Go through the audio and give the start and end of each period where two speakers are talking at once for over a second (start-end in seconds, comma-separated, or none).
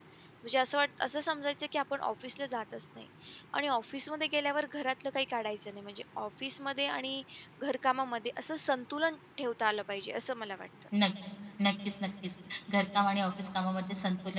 none